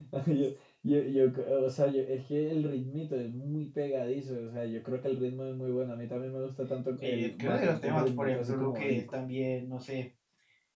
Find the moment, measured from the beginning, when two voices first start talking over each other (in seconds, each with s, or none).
7.0 s